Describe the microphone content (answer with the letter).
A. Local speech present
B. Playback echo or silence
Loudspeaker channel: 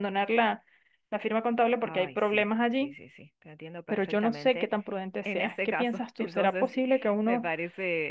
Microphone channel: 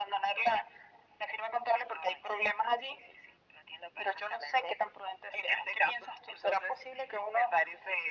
B